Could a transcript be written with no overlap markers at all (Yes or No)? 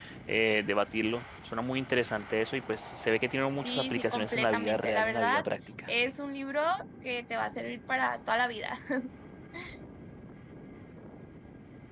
No